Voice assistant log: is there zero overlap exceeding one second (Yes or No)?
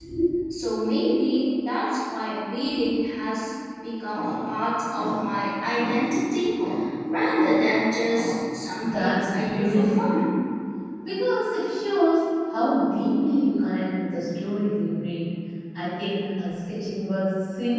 No